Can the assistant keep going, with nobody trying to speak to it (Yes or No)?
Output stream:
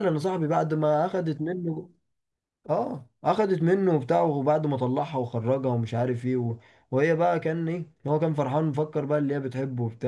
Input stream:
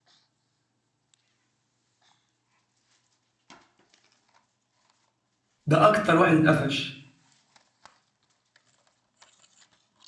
No